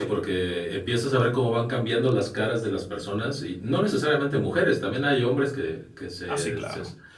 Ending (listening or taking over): listening